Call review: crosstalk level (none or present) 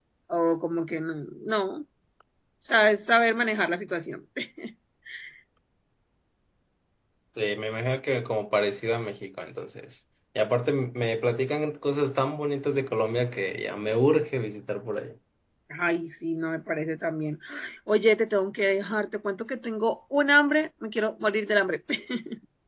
none